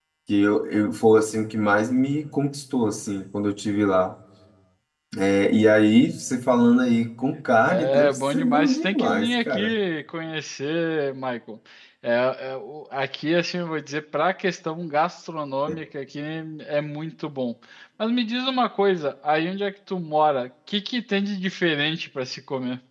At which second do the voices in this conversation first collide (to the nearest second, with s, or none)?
8 s